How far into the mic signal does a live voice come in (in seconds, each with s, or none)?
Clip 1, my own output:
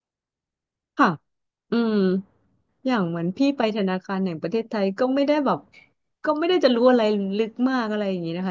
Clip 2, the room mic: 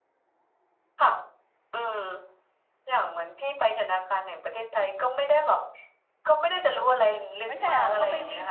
7.5 s